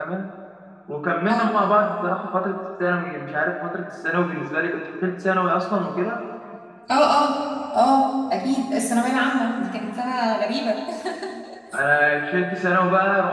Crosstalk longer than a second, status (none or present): none